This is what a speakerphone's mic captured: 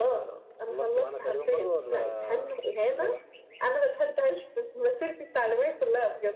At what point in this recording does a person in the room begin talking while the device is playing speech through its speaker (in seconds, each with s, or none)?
none